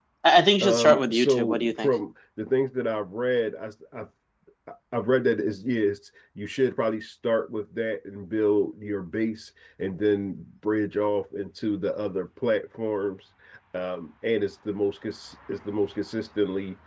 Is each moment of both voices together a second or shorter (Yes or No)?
No